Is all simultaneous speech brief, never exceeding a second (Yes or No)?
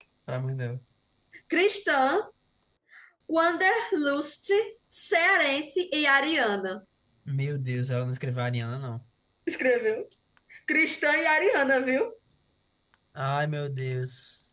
Yes